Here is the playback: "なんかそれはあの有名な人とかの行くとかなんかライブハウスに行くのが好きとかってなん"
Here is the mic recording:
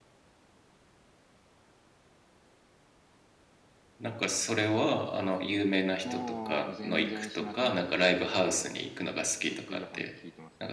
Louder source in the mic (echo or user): echo